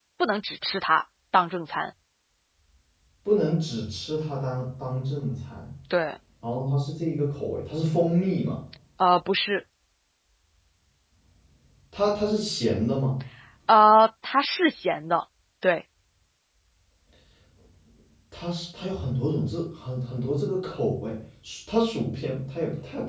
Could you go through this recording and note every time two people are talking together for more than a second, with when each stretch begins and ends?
none

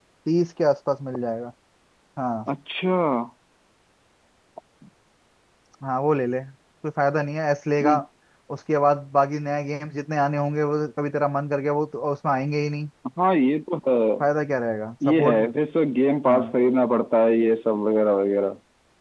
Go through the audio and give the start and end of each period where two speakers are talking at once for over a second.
none

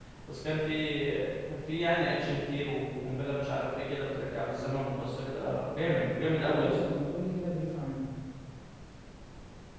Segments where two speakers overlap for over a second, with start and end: none

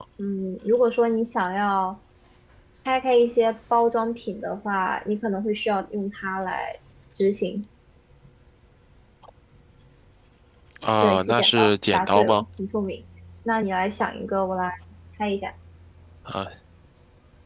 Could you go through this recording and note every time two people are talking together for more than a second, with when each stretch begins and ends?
11.0-12.4

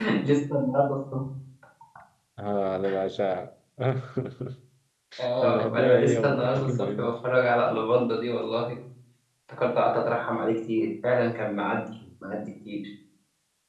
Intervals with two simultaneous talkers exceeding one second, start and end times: 5.4-7.2

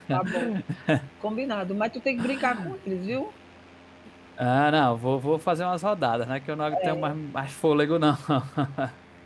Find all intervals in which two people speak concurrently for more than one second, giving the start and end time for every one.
none

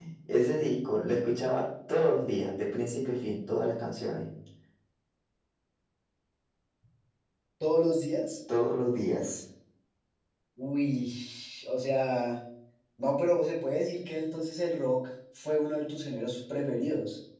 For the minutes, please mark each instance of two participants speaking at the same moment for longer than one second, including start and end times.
none

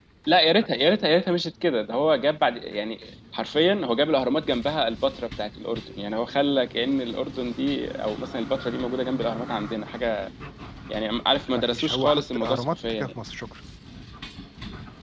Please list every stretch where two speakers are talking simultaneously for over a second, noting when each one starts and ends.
11.5-13.1

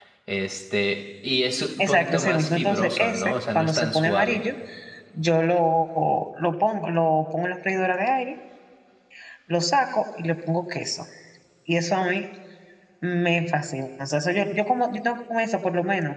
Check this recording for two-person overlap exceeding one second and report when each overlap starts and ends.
1.8-4.4

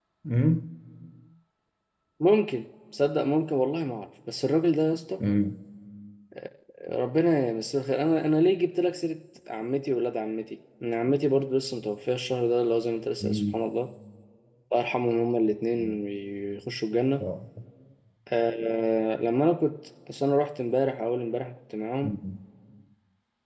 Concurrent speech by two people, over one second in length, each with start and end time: none

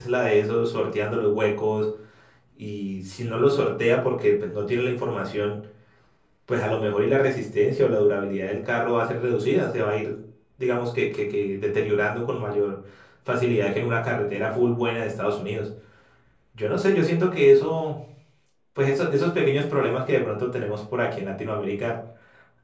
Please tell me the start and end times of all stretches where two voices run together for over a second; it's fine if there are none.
none

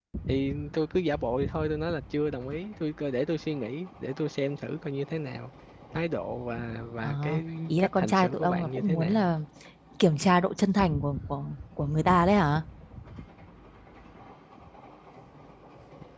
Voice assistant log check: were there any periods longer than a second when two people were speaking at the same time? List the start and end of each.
7.7-9.3

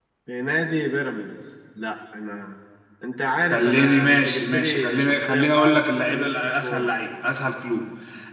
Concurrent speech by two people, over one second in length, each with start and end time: 3.5-6.9

